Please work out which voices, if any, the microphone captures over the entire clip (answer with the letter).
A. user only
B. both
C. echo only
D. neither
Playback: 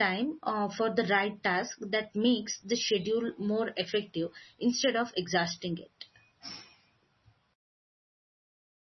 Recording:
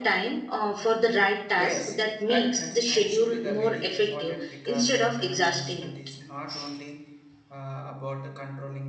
B